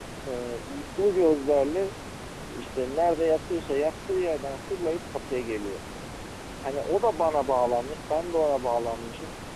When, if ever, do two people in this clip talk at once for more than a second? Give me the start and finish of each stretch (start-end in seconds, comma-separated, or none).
none